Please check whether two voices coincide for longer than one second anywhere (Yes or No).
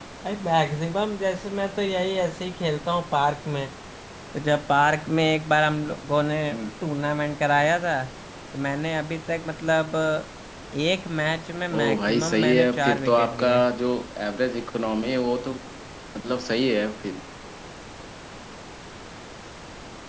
Yes